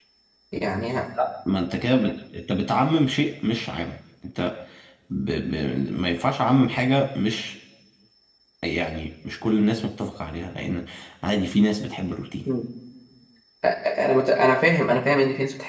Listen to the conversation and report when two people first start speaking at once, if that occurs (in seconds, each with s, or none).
none